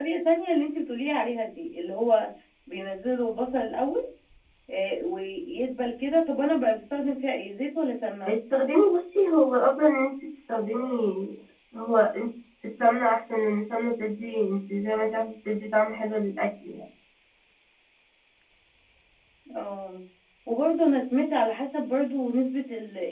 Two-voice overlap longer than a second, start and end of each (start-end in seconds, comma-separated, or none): none